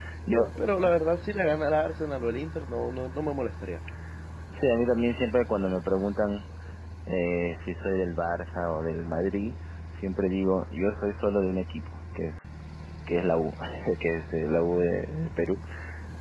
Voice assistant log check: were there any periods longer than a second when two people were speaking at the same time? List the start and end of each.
none

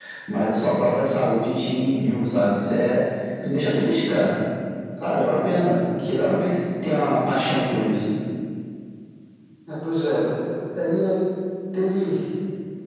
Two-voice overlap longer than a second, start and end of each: none

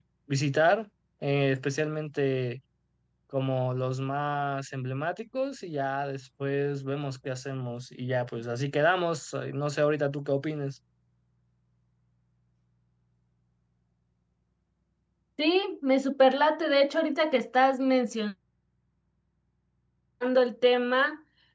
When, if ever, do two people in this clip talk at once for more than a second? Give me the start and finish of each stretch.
none

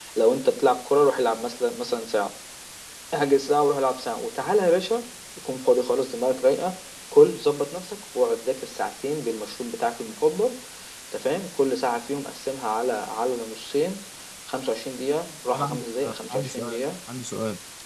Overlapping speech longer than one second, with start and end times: 15.5-16.8

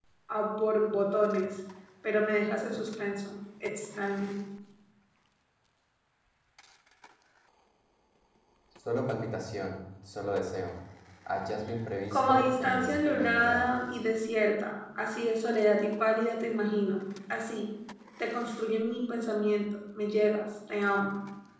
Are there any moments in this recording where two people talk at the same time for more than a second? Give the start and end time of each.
12.1-13.8

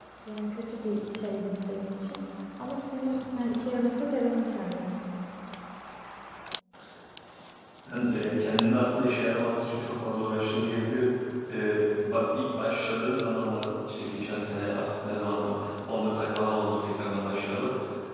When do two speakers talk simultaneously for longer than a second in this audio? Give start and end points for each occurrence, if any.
none

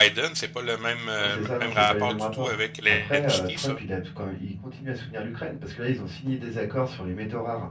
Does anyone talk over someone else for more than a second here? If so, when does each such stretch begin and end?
1.2-3.8

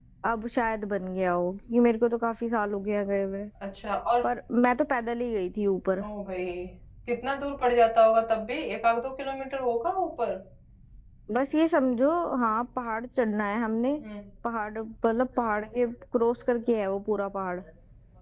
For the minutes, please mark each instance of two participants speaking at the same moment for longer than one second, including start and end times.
none

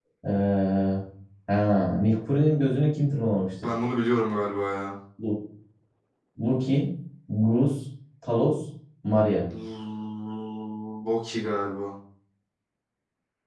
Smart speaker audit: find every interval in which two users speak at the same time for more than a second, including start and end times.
none

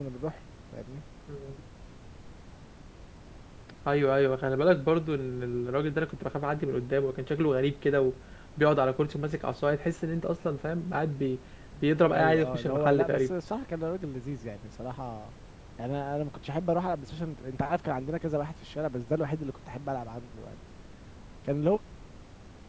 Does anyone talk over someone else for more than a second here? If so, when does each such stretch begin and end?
12.1-13.3

